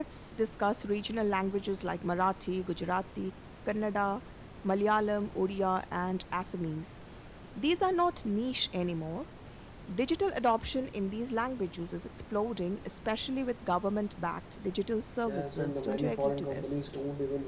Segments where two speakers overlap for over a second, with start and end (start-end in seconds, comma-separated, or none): 15.3-16.9